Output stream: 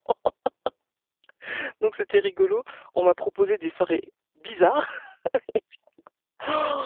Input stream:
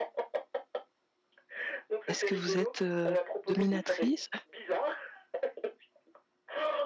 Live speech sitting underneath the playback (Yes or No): No